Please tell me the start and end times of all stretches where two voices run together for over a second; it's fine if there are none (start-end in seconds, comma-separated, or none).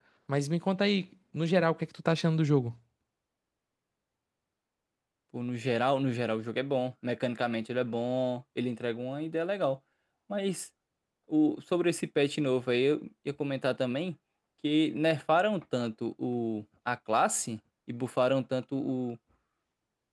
none